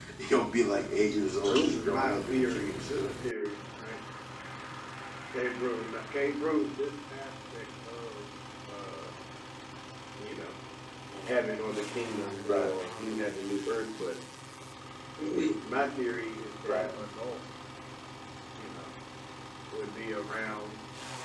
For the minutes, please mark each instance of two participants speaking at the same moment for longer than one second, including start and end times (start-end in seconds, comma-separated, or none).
1.4-3.1